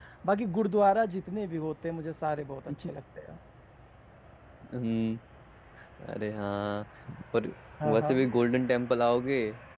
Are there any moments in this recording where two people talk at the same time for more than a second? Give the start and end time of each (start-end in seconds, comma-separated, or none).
none